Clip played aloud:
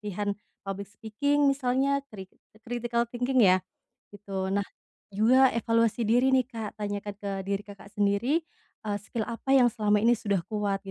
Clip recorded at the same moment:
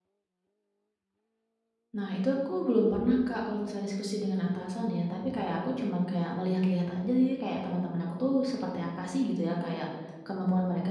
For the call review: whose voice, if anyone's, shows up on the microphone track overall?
user only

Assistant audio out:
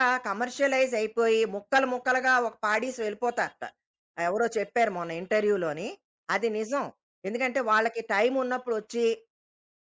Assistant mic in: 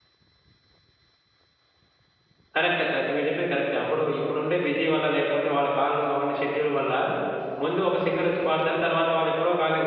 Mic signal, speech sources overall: user only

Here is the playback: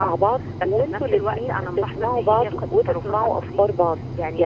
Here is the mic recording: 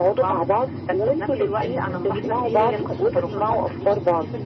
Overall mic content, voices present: both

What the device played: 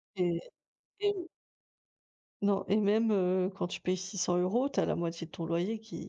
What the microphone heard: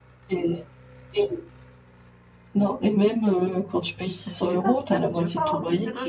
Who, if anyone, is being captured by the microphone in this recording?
both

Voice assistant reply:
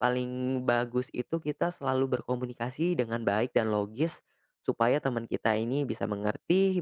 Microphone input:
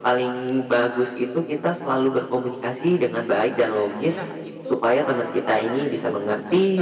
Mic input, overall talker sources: both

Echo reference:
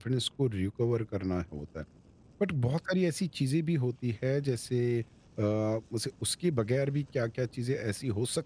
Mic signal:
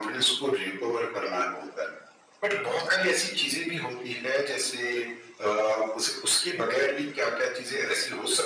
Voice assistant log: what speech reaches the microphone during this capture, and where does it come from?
echo only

